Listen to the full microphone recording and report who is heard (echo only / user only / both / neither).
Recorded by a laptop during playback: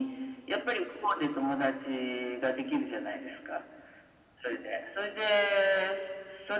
echo only